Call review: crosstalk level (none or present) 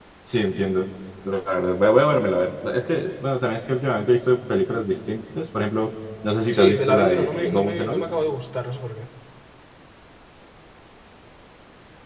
present